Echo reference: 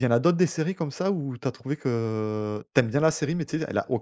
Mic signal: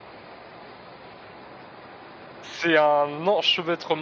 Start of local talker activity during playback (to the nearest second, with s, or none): 2 s